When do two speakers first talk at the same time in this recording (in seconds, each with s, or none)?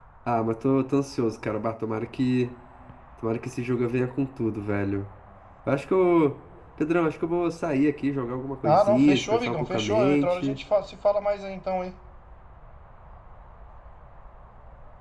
8.6 s